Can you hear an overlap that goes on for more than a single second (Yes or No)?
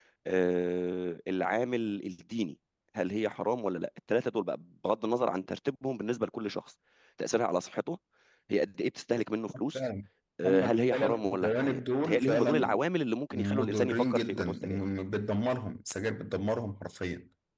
Yes